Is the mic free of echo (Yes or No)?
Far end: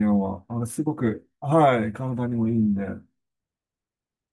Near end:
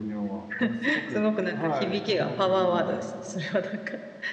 No